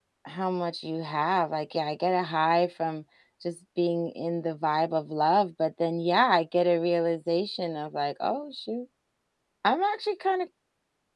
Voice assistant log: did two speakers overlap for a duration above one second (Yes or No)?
No